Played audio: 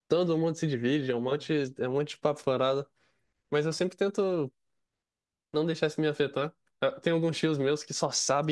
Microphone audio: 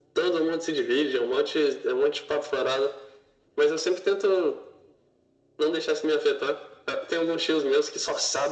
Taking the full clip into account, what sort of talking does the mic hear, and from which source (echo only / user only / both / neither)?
echo only